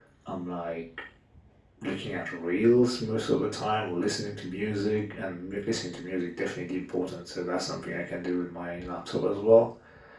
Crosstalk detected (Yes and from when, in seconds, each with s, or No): No